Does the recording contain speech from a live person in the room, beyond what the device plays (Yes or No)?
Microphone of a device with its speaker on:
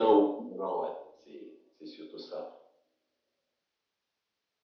No